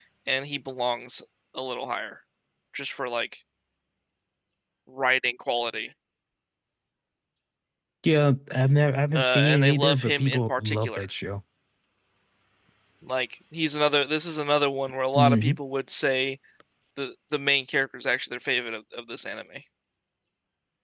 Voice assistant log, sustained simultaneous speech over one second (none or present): present